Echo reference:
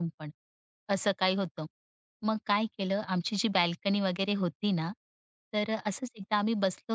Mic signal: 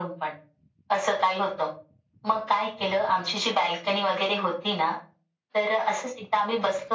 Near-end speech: none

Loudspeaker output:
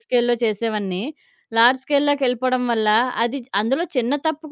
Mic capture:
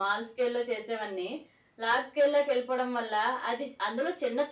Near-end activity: none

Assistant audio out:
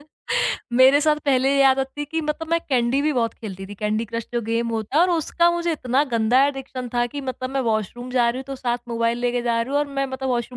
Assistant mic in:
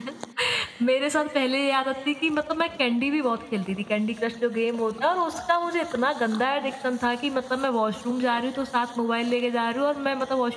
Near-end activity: none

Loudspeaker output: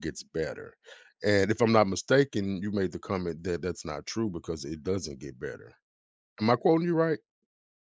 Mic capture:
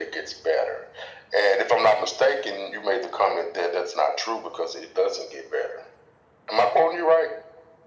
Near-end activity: none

